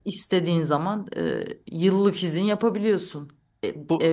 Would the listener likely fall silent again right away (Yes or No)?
Yes